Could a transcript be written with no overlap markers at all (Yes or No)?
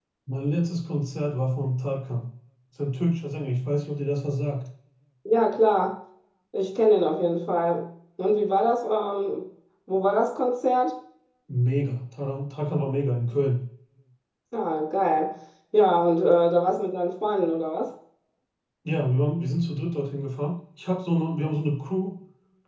Yes